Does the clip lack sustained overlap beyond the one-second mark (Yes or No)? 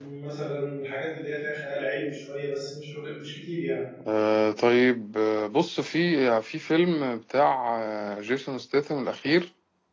Yes